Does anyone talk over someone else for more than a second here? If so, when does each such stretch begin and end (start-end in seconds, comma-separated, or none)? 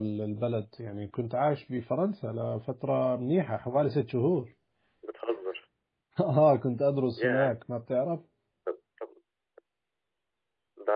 none